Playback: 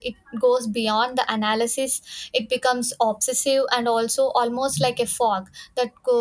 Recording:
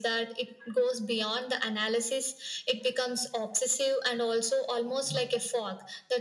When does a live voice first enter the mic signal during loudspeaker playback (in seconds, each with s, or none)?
none